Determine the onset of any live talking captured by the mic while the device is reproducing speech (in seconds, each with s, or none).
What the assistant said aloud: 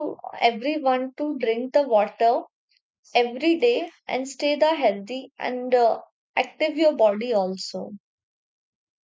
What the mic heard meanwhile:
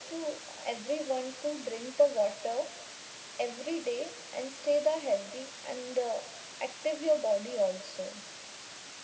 none